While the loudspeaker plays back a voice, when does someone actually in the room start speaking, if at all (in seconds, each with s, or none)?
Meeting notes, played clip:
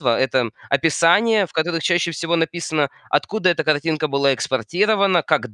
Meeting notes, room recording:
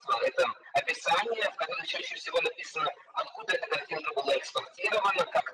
none